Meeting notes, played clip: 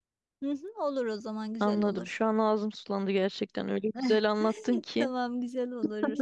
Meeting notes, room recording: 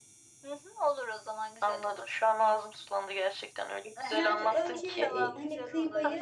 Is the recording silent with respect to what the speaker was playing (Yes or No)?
No